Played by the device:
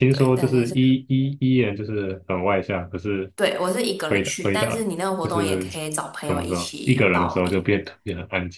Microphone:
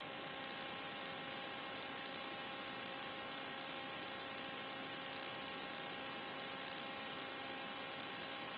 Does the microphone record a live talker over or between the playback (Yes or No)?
No